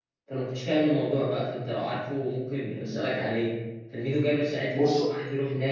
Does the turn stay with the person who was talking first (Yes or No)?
Yes